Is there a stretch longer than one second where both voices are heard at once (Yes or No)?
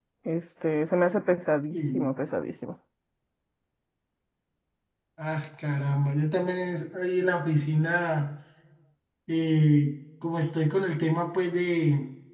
No